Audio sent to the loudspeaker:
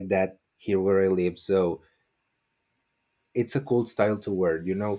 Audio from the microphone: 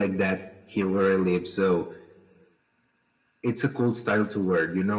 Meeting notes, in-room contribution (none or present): none